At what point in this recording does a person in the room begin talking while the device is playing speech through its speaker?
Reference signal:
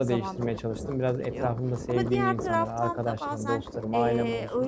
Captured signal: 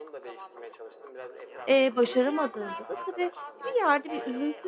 2 s

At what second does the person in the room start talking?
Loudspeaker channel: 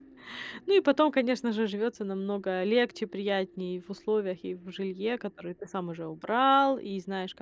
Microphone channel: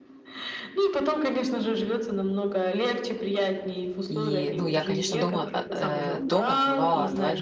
4 s

